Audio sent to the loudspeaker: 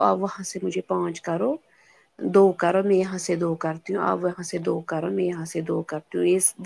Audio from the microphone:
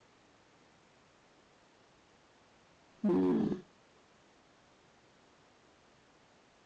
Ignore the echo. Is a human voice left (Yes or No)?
Yes